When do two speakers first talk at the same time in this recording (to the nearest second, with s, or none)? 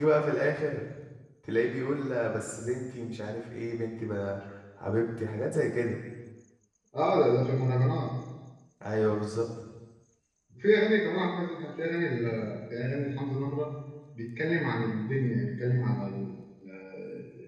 none